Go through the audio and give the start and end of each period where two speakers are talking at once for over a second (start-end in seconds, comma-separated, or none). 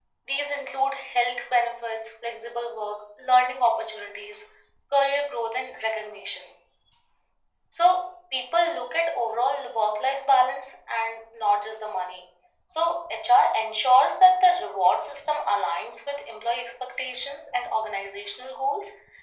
none